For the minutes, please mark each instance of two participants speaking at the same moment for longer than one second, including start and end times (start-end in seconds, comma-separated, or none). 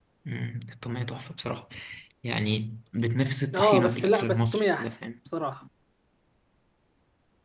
3.5-4.9